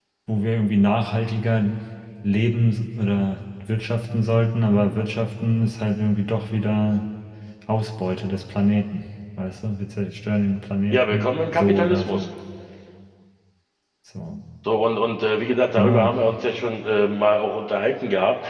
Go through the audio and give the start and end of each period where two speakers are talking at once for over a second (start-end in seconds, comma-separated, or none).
10.9-12.2